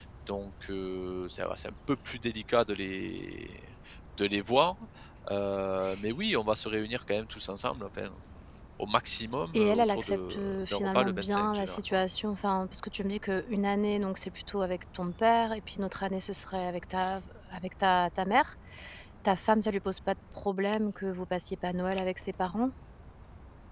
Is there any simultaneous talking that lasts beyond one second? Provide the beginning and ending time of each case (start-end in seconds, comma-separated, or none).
9.5-12.0